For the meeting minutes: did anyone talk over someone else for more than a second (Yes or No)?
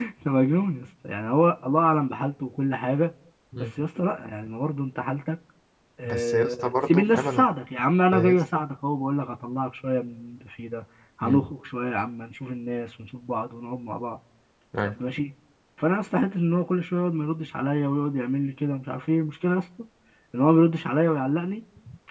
Yes